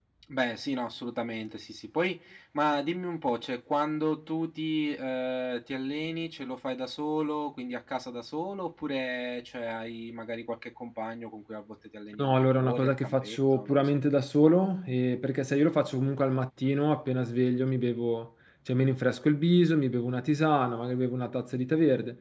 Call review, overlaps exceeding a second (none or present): present